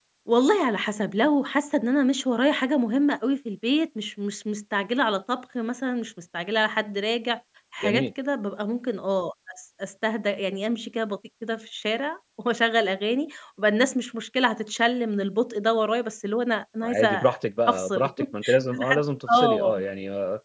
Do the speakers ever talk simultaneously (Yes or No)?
Yes